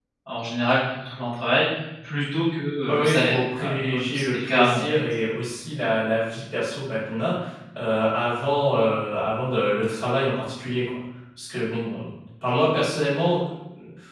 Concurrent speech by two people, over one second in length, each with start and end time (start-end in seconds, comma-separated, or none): 2.9-4.9